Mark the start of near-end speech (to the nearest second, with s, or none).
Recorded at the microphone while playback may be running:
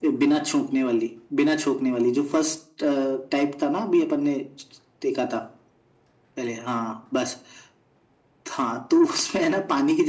none